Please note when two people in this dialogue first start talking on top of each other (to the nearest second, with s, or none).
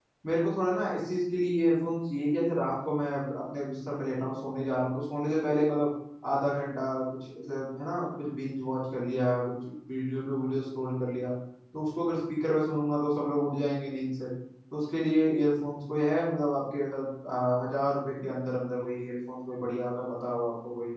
none